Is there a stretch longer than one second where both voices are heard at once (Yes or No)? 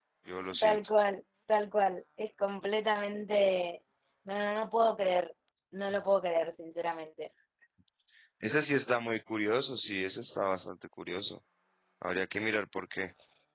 No